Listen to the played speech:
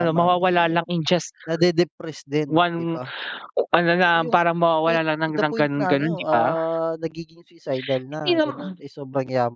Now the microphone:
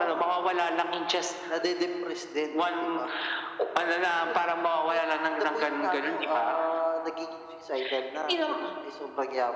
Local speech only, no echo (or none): none